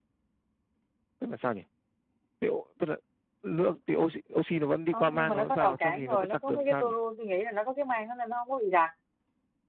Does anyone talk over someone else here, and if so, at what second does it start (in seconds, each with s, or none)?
4.9 s